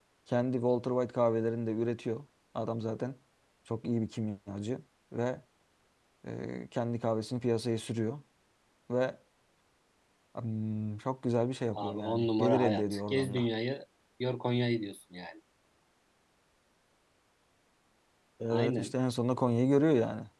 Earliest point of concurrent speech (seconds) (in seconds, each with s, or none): 11.8 s